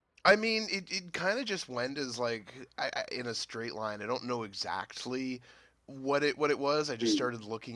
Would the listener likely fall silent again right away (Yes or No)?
Yes